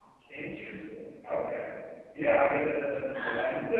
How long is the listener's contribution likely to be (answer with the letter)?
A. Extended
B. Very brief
B